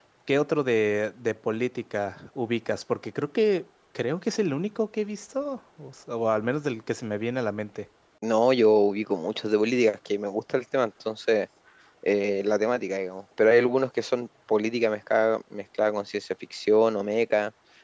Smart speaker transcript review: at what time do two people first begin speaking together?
none

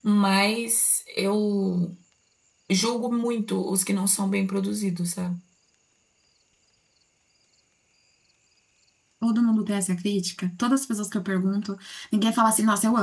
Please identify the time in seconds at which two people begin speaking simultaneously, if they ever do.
none

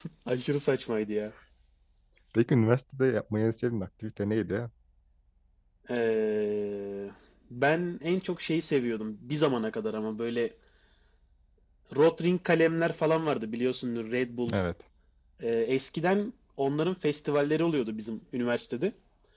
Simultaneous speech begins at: none

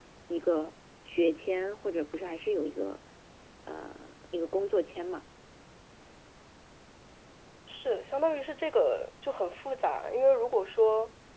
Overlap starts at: none

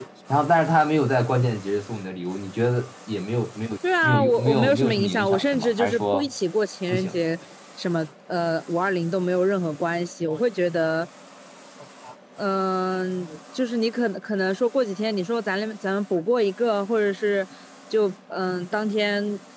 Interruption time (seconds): 4.0 s

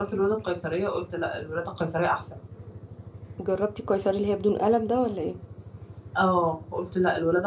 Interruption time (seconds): none

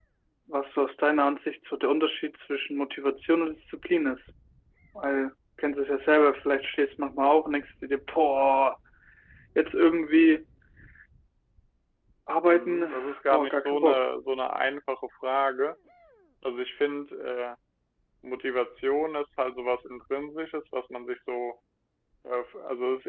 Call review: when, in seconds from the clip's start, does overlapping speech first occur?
12.4 s

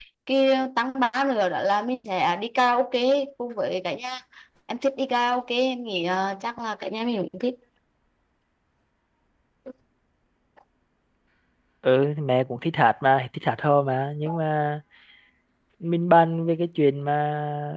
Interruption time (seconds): none

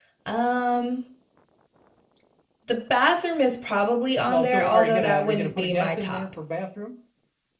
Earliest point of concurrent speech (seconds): 4.2 s

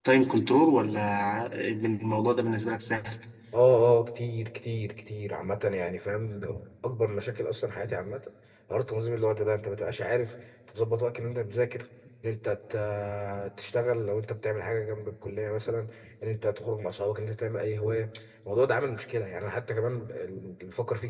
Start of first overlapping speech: none

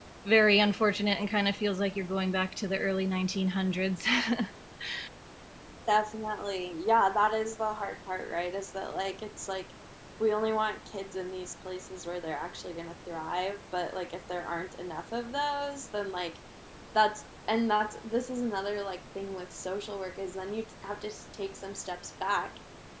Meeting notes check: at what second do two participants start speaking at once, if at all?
none

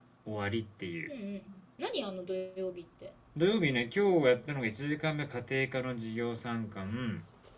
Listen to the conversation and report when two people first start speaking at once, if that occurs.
none

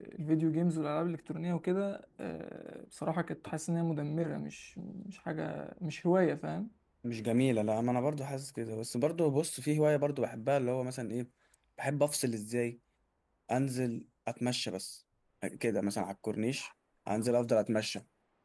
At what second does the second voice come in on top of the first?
none

